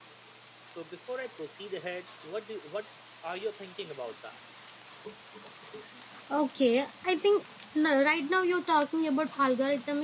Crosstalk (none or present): none